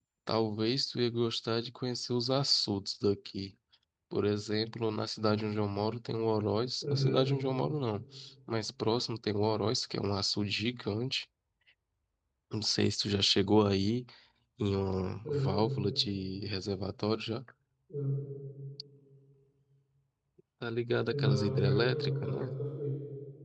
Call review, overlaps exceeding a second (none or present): present